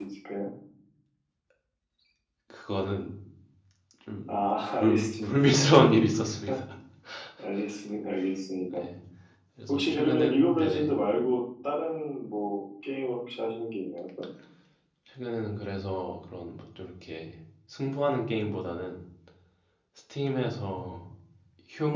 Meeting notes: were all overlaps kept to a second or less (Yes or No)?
No